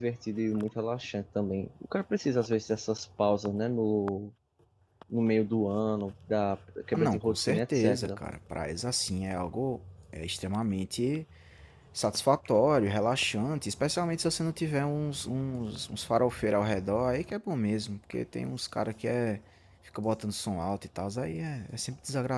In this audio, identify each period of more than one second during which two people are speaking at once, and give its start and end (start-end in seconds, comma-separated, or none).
6.9-8.2